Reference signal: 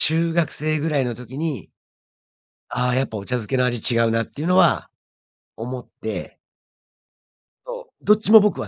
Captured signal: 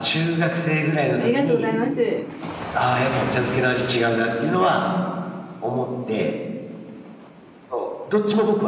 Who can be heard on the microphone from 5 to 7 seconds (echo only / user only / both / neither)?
echo only